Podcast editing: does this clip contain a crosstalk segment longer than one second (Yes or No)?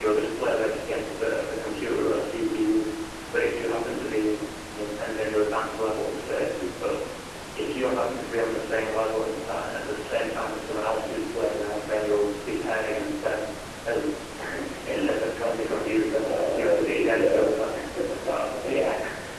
Yes